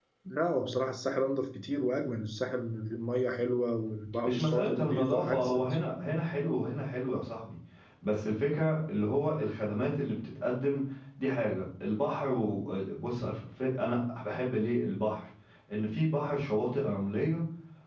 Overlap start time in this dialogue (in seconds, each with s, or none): 4.2 s